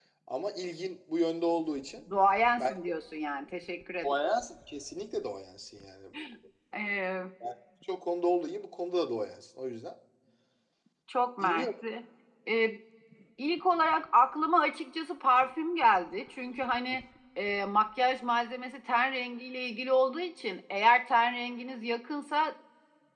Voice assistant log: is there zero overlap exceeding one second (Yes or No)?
Yes